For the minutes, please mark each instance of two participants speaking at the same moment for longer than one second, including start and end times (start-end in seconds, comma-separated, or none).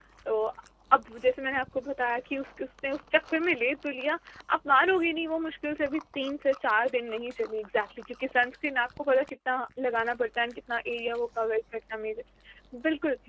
none